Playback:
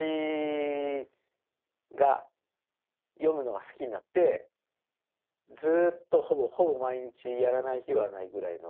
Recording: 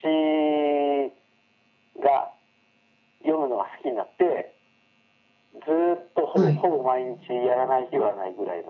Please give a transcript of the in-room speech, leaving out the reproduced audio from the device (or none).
え。はい。